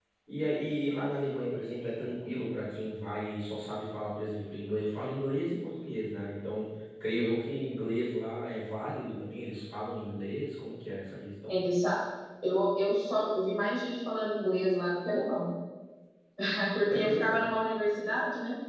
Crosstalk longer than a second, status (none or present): none